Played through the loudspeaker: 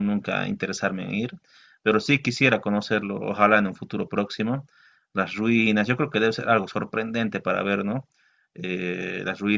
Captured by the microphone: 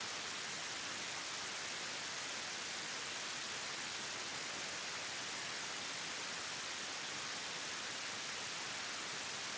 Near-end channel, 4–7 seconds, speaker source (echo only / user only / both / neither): neither